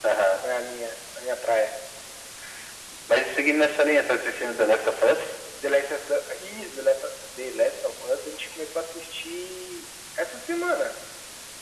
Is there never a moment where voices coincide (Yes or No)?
Yes